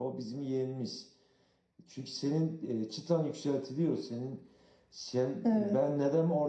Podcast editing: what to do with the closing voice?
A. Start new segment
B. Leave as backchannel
B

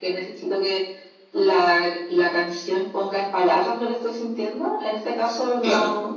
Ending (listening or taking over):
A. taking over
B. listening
B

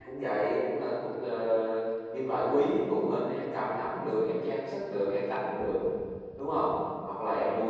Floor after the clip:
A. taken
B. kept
B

